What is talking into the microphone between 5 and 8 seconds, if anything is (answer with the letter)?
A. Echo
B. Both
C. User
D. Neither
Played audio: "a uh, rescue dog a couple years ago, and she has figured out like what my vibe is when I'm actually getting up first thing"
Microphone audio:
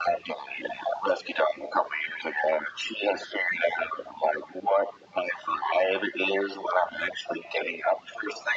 A